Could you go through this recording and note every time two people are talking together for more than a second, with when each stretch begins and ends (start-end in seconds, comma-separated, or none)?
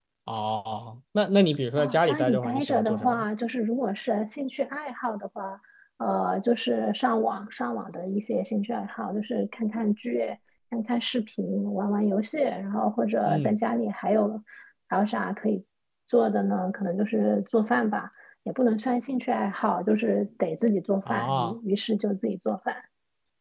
1.8-3.2